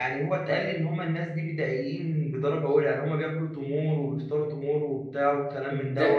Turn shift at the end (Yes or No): Yes